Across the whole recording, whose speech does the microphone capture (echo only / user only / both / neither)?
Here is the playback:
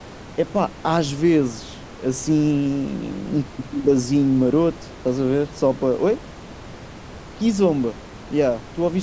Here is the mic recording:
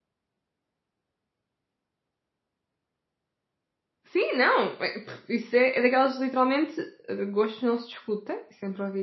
user only